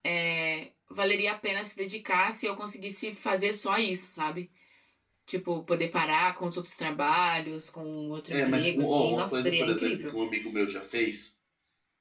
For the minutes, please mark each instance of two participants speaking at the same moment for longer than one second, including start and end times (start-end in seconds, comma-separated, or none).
8.3-10.1